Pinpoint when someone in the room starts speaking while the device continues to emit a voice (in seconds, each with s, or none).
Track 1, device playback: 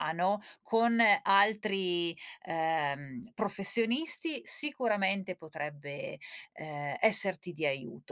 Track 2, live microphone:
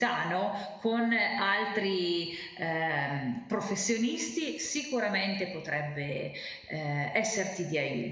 none